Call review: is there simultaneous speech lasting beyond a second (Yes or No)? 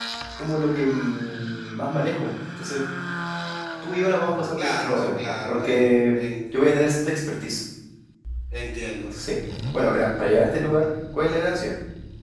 Yes